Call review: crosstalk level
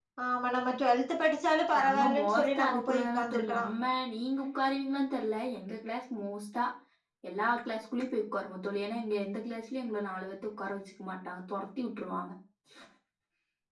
present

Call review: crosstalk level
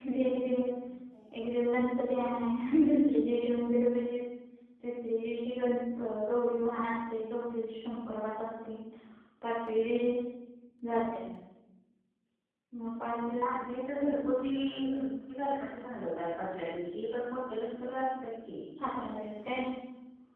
none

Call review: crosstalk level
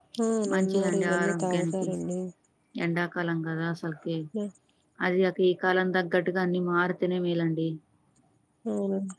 present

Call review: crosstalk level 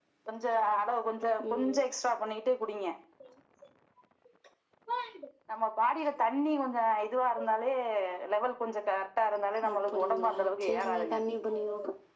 present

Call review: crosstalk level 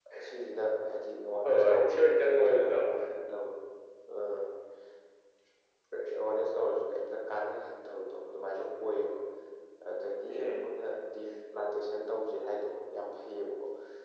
present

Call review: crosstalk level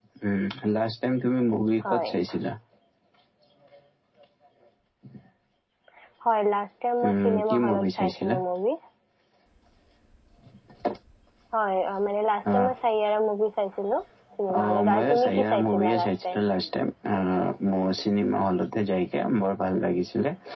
present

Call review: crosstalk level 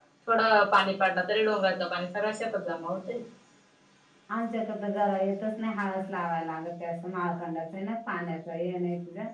none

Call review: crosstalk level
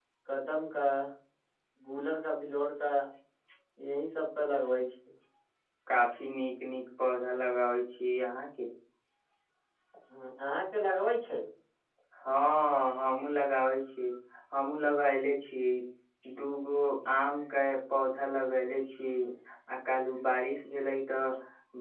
none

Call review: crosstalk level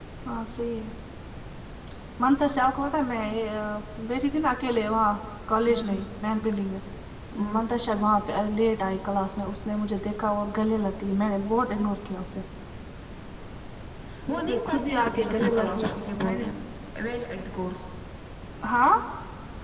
present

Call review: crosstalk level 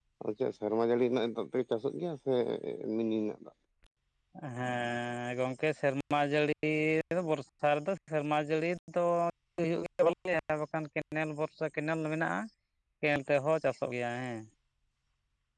none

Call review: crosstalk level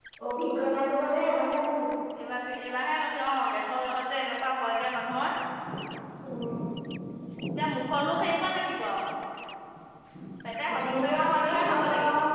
present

